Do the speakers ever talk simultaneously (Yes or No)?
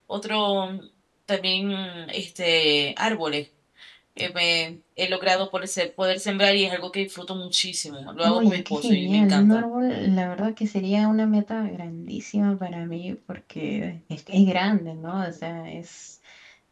Yes